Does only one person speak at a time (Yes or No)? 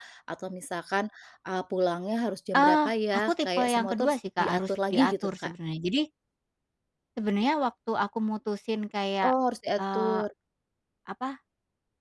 No